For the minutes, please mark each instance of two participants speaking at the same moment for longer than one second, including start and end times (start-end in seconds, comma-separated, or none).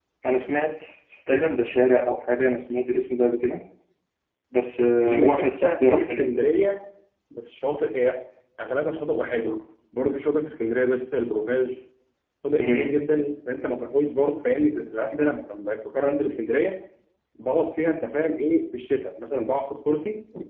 5.0-6.2